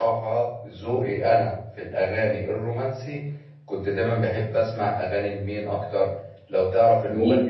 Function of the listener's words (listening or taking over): listening